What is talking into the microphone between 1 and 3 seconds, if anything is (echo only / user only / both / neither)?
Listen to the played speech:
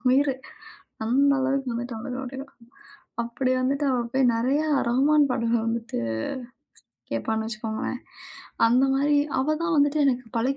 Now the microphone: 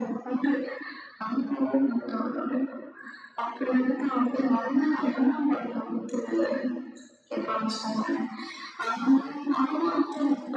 echo only